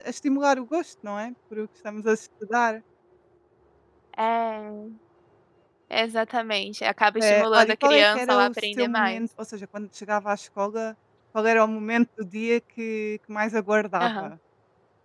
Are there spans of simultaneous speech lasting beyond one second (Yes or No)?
Yes